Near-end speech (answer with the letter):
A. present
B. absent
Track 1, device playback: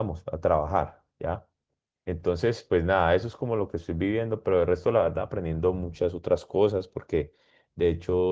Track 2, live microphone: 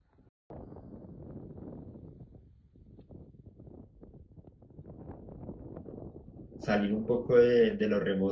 A